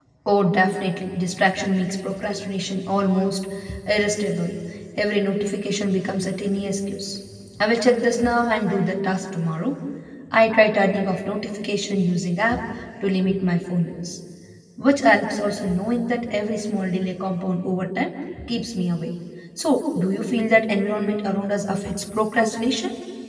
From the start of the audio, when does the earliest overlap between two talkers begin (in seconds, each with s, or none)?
none